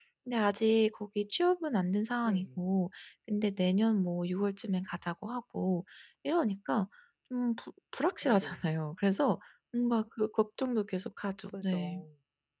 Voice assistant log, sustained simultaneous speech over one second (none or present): none